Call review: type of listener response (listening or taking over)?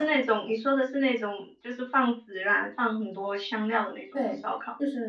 taking over